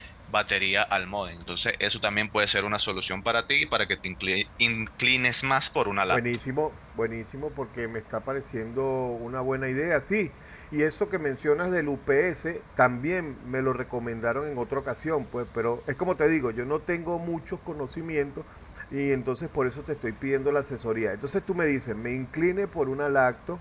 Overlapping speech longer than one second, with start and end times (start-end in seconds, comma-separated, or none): none